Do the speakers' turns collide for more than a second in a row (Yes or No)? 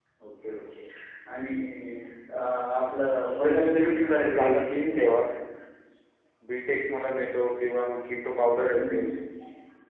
Yes